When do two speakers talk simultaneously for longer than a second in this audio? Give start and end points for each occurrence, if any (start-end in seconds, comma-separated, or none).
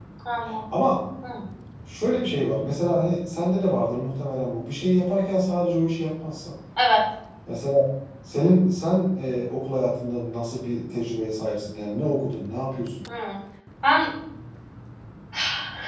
none